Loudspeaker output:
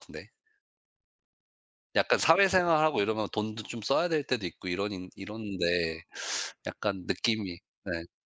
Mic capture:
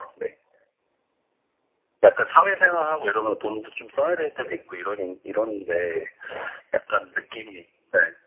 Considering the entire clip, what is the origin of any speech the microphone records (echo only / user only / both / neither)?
echo only